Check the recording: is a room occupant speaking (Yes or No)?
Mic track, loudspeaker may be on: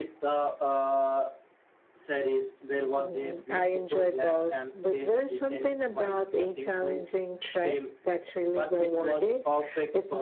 No